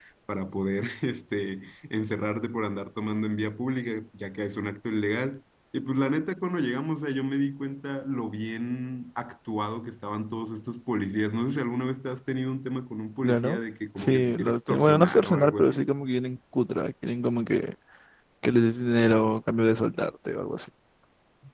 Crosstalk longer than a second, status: present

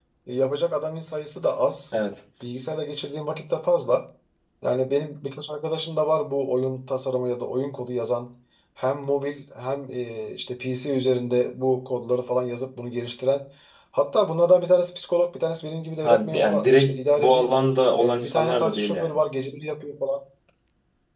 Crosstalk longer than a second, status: present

